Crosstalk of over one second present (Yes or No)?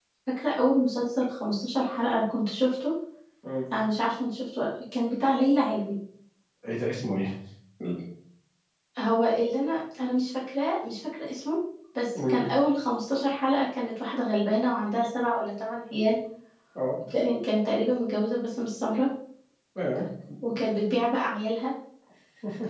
No